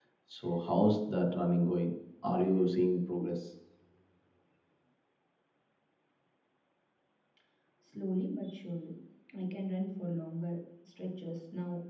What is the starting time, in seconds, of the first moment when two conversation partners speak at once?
none

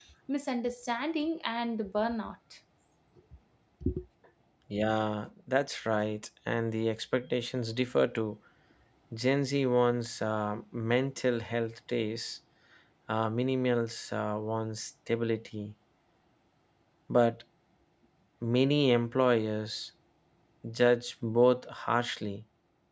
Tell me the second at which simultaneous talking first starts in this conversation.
none

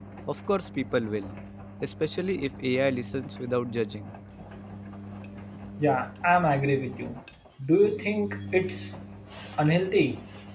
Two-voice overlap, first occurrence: none

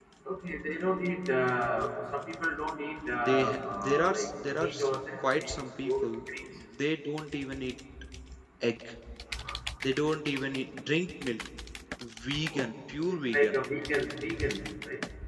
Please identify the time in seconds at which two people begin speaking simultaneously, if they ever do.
3.2 s

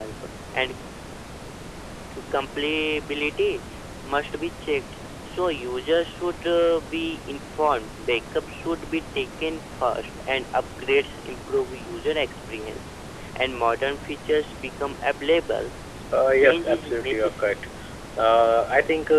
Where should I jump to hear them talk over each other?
16.4 s

